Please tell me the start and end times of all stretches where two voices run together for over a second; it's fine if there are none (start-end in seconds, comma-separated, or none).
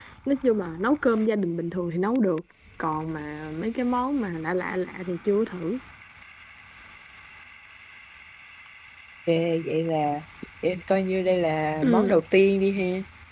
none